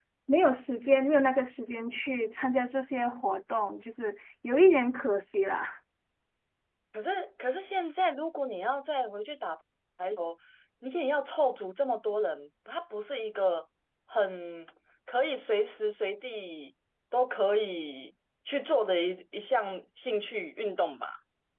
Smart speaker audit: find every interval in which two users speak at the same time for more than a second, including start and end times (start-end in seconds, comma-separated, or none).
none